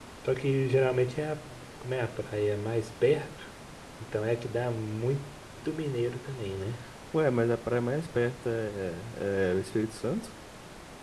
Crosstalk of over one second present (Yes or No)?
No